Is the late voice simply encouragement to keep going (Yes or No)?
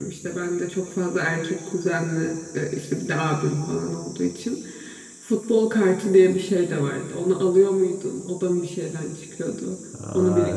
No